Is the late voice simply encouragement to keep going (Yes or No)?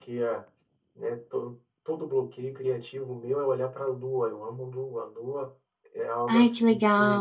No